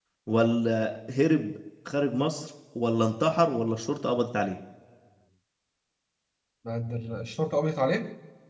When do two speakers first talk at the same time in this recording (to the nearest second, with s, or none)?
none